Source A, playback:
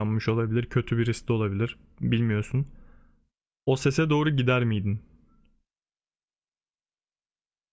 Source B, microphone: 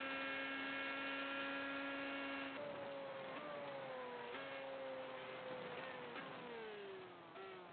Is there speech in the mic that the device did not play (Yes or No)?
No